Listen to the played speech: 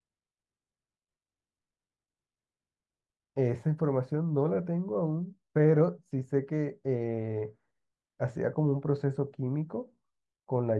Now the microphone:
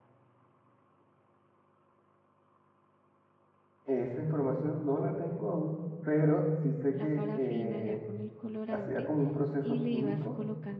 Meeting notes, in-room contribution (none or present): present